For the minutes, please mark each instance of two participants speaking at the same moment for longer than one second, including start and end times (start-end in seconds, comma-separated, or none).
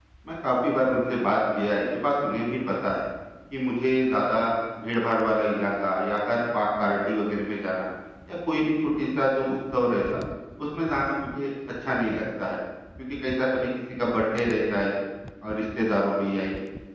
none